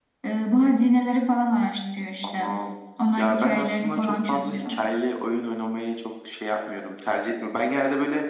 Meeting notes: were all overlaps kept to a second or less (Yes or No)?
No